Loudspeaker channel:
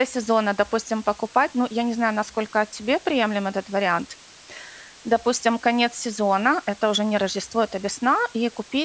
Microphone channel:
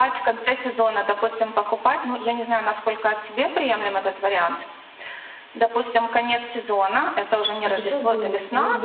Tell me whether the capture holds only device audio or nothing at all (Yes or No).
No